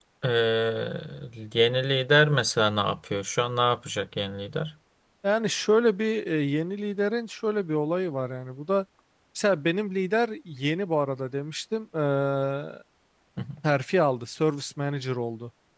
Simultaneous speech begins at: none

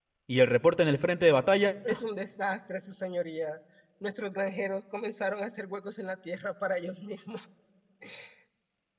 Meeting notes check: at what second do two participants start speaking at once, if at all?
none

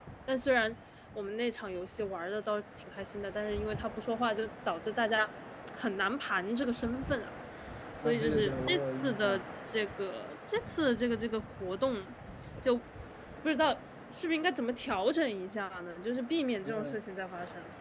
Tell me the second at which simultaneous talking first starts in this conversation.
8.0 s

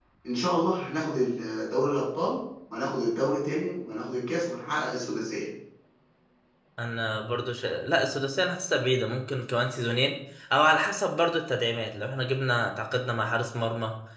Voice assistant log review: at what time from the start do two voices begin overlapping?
none

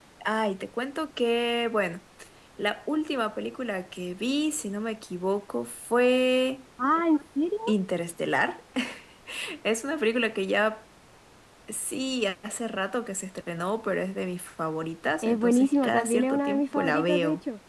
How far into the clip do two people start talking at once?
15.2 s

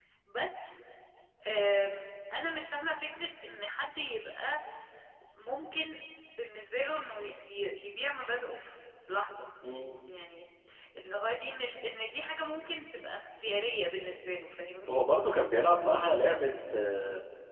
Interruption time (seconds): none

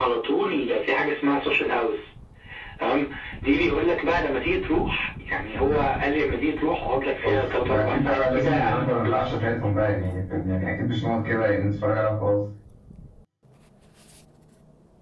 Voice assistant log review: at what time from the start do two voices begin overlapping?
7.2 s

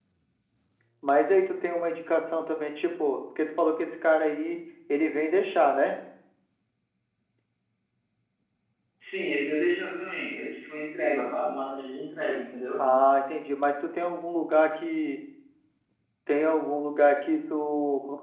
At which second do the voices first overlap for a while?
none

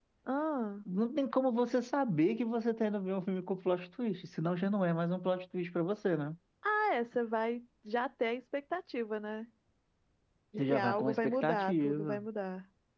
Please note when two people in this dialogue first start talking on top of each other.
10.7 s

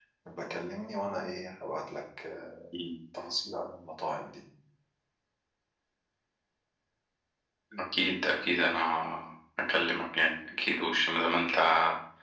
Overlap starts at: none

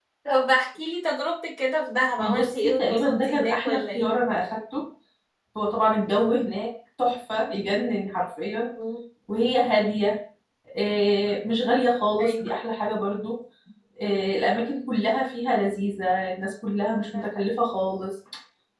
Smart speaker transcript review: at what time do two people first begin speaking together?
2.2 s

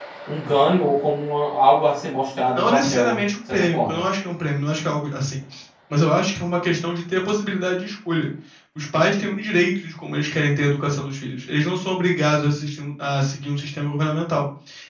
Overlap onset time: 2.5 s

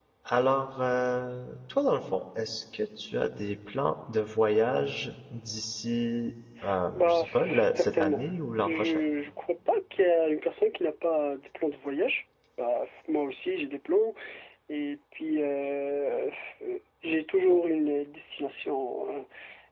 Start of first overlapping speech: 6.9 s

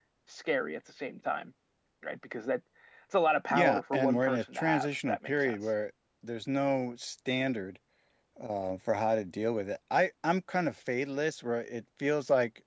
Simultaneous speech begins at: 3.5 s

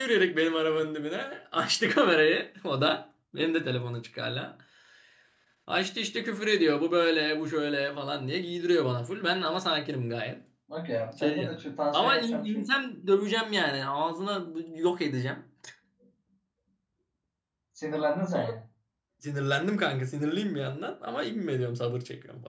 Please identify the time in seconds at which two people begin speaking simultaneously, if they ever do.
11.2 s

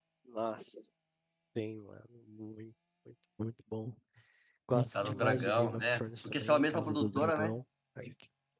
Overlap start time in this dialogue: 4.9 s

